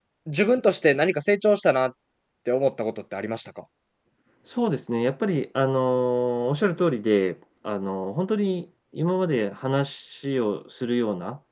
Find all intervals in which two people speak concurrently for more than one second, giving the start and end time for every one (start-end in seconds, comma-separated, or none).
none